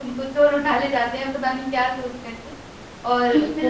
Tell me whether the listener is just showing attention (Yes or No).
No